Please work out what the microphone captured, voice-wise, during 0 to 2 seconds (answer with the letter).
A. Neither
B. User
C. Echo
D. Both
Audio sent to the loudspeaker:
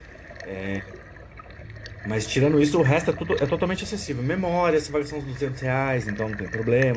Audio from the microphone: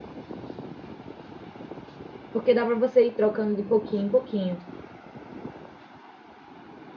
A